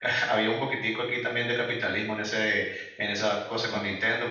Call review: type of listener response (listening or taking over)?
listening